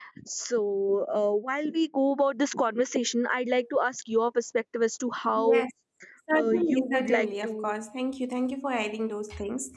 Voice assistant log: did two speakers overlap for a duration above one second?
Yes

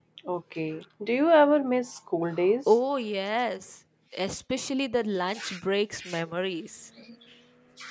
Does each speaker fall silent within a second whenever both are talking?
Yes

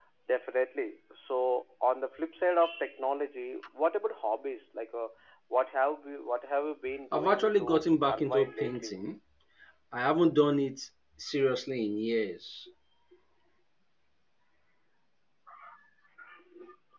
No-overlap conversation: No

